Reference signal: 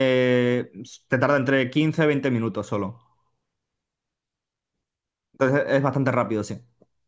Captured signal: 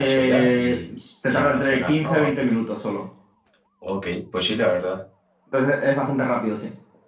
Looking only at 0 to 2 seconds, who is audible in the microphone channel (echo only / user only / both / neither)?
both